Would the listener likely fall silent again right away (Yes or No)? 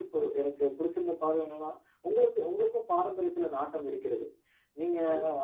Yes